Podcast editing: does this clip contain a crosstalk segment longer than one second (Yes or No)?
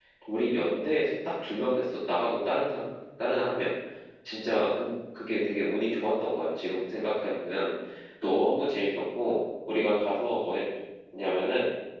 No